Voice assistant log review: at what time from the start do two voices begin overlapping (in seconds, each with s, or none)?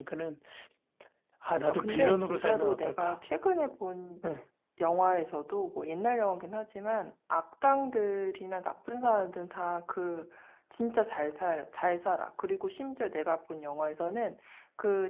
1.7 s